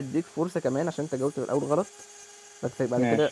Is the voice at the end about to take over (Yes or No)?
No